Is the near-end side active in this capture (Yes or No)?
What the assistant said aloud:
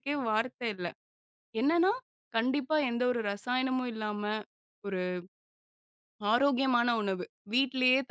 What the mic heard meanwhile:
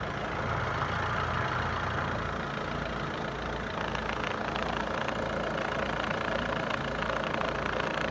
No